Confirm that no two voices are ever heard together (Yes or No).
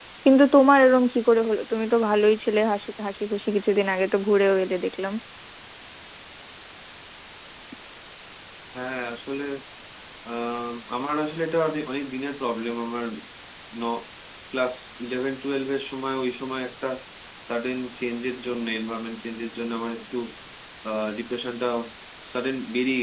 Yes